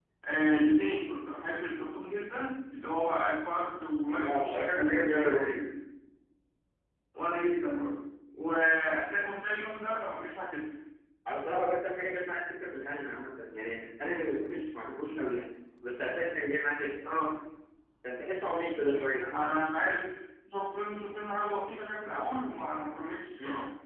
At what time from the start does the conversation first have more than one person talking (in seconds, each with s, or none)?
4.1 s